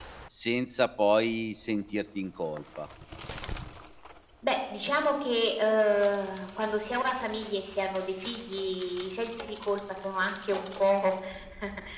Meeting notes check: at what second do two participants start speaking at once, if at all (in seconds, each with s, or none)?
none